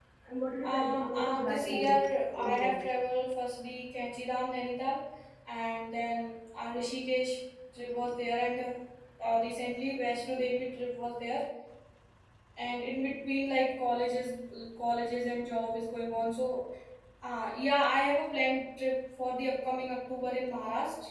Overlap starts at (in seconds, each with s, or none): 0.6 s